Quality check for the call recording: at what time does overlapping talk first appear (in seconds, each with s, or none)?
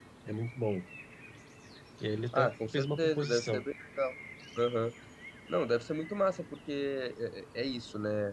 2.3 s